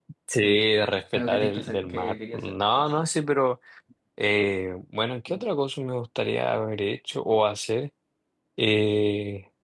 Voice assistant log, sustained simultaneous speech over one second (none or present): present